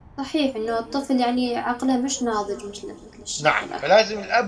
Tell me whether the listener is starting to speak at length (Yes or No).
Yes